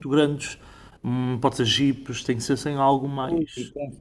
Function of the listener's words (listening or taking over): taking over